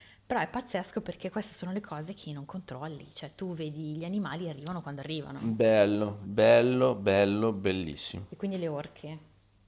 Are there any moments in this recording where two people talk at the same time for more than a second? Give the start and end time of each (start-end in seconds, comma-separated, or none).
none